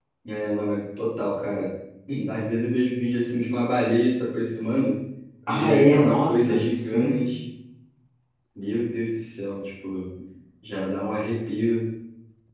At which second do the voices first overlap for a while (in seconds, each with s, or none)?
5.5 s